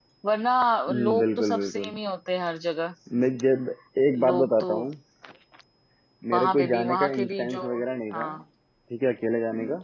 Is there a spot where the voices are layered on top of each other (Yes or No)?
Yes